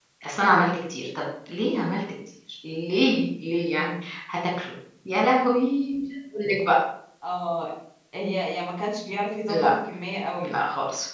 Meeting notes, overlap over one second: none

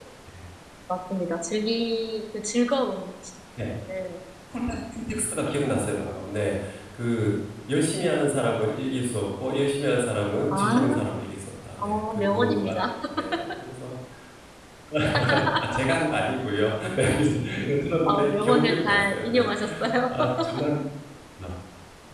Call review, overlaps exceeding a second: present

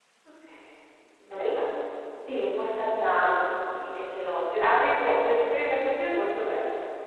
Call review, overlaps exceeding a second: none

